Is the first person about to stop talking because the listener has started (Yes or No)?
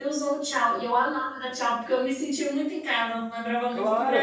Yes